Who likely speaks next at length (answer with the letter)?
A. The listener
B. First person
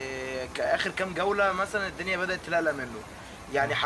B